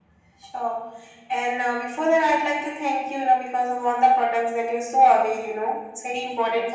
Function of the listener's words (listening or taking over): listening